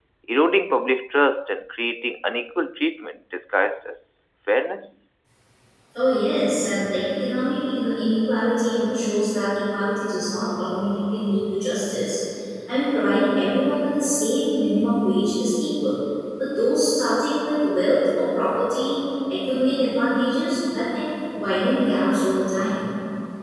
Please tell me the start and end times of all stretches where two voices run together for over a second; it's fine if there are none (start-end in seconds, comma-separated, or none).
none